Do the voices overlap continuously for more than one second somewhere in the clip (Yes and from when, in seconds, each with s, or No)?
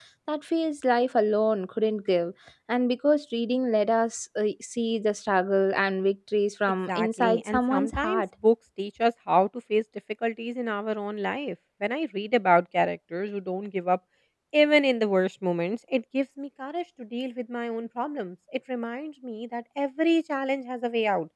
Yes, from 6.8 s